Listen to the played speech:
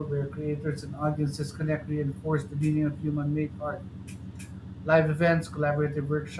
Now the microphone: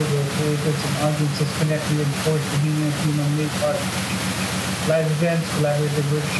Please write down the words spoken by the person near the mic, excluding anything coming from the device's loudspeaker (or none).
none